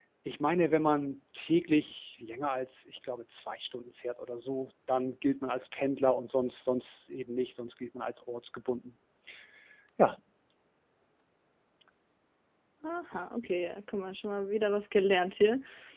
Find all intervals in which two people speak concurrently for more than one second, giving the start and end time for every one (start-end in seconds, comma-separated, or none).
none